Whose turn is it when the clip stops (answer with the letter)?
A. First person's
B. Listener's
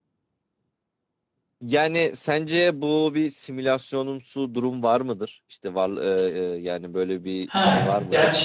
B